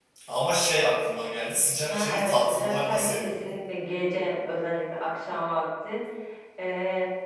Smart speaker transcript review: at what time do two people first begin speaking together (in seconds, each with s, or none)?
1.9 s